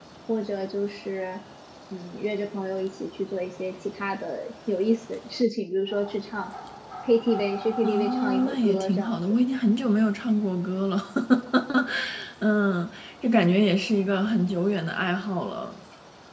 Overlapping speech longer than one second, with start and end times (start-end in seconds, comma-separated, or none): 7.8-9.4